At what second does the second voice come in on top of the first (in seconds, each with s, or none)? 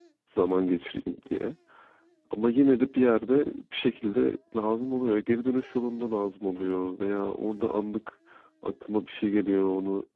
none